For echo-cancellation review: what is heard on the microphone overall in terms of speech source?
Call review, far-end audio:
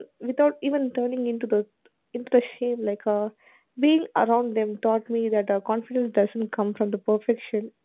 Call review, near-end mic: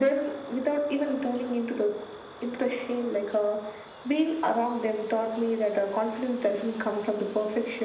echo only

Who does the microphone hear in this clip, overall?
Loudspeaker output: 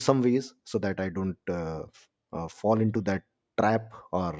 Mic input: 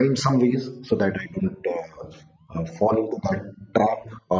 echo only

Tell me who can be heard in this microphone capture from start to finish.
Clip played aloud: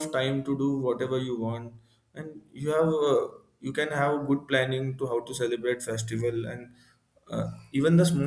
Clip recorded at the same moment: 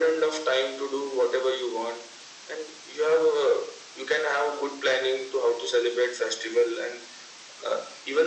echo only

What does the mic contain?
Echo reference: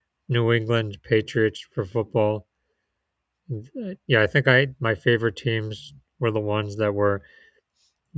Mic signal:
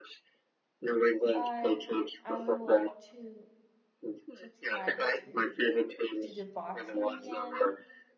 both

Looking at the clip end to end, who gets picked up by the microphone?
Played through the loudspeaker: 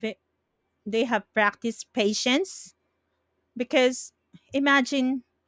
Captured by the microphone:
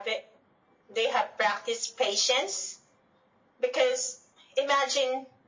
echo only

